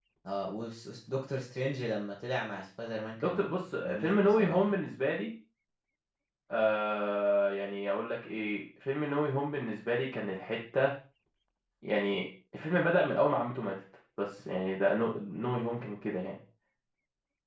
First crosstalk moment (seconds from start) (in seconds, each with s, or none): 3.2 s